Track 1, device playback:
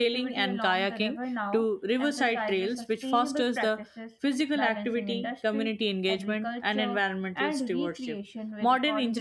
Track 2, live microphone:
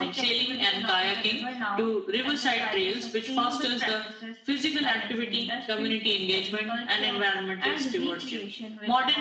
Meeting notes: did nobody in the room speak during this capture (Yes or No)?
Yes